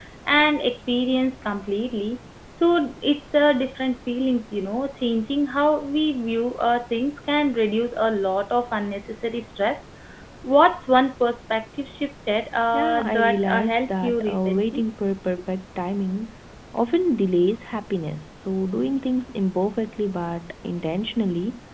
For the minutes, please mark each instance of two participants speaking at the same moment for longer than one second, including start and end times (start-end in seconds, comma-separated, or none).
12.7-14.8